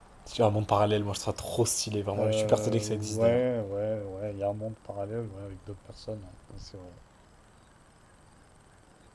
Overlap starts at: 2 s

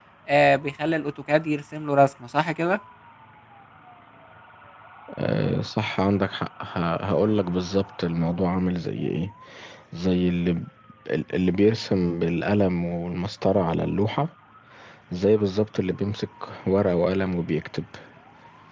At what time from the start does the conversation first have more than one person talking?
none

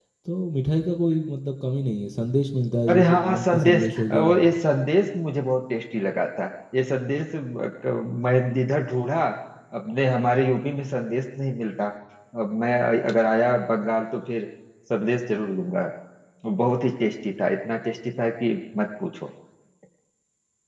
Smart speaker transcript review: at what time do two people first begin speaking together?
3 s

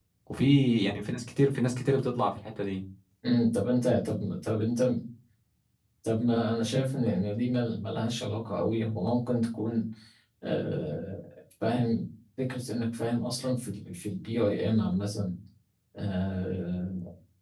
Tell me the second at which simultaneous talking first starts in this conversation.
none

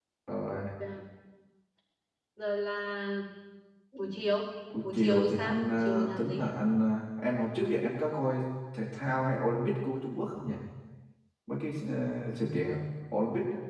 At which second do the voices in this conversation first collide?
5 s

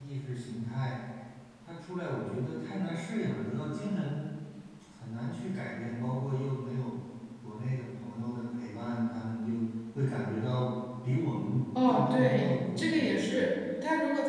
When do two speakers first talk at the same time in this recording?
12 s

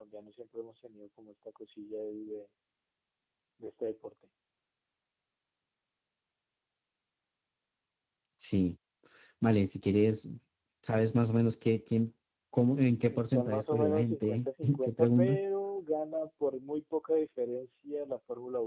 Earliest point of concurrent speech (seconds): 13 s

